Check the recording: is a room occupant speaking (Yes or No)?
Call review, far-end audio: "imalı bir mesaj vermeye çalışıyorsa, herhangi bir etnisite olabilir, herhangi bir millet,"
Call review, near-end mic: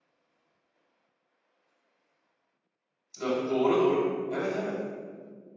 Yes